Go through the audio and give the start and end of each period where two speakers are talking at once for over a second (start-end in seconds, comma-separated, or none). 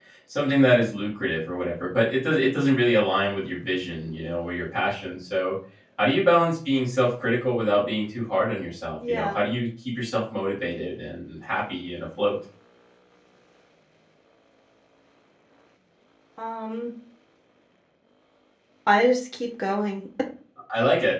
none